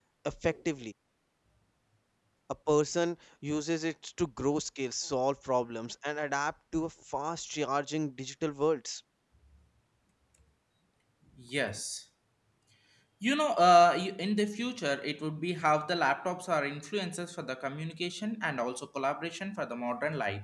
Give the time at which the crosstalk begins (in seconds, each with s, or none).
none